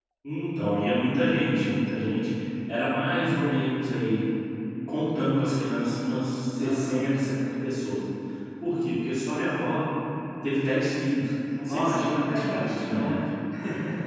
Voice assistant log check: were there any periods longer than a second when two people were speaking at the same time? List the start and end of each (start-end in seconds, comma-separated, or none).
11.6-13.2